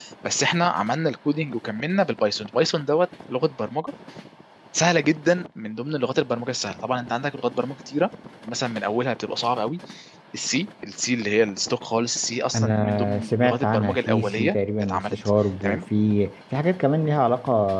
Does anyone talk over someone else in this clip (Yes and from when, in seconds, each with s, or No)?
Yes, from 12.5 s